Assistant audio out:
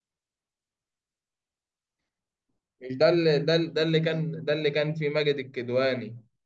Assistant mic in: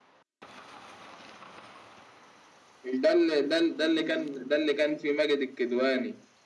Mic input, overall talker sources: echo only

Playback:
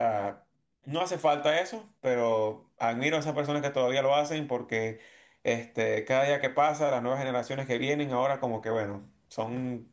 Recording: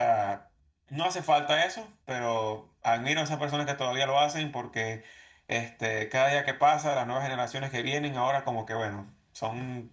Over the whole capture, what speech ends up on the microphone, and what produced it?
echo only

